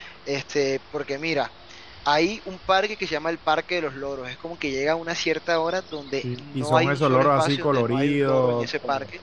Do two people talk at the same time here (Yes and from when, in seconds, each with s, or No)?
Yes, from 6.2 s